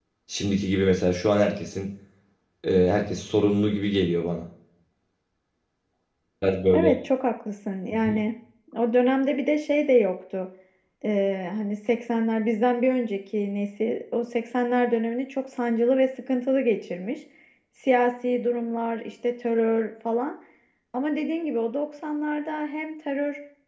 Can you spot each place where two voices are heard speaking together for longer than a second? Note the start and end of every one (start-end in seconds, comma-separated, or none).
none